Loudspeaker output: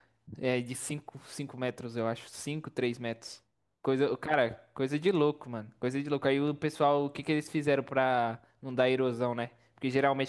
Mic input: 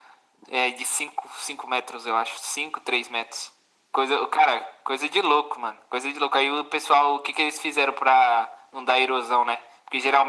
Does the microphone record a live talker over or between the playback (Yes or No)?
No